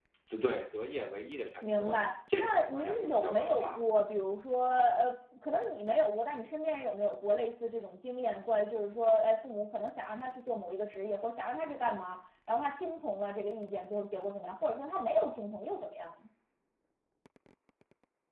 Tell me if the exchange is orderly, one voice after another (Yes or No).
No